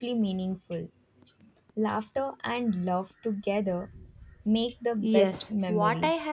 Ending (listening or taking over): taking over